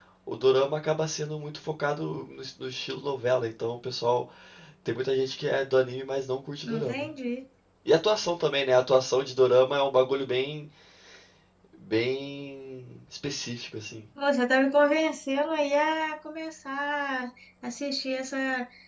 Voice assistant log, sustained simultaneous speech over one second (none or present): none